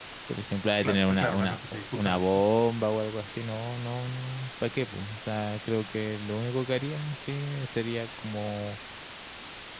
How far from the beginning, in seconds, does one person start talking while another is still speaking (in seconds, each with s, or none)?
0.8 s